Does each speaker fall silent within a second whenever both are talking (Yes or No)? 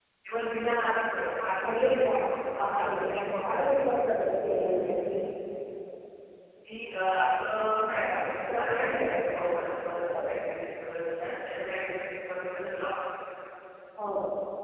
No